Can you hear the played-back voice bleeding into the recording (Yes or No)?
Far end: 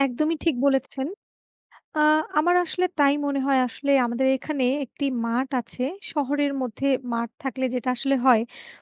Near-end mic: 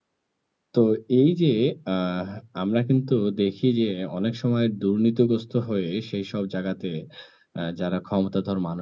No